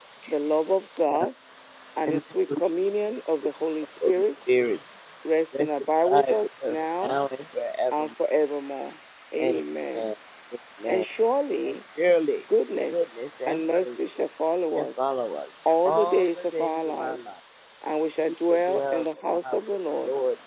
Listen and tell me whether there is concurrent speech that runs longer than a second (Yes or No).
Yes